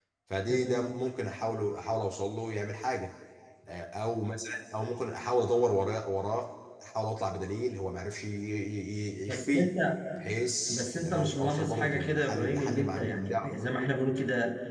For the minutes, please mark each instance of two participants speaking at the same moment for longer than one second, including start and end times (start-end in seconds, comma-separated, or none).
10.7-13.5